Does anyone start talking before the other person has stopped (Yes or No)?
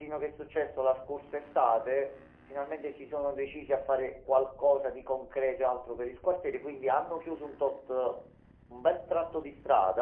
No